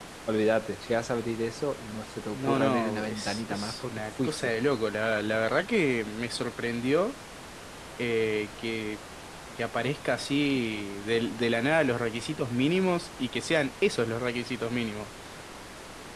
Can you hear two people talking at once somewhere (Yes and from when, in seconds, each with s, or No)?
Yes, from 2.3 s